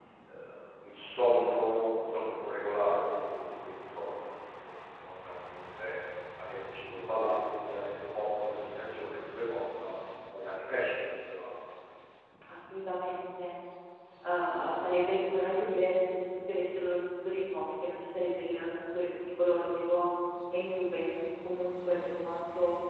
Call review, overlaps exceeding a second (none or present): none